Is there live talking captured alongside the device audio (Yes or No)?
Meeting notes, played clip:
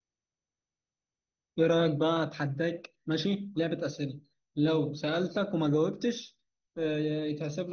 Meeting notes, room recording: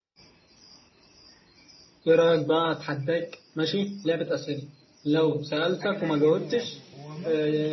Yes